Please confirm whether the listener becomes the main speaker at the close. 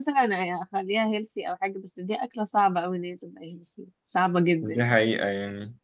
Yes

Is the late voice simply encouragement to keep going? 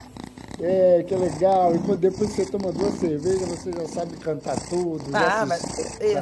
No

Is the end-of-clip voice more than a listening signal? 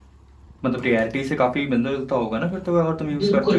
Yes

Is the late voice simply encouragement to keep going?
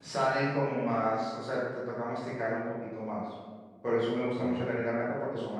Yes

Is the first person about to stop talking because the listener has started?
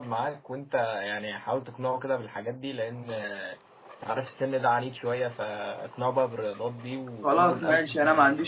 Yes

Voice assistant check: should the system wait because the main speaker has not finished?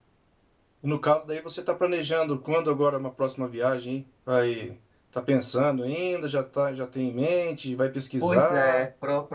No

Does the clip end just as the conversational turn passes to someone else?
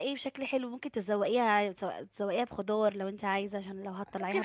Yes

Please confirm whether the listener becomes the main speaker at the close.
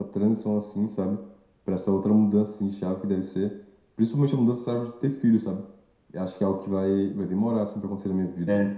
Yes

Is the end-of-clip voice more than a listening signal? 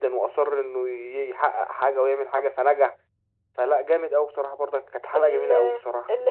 Yes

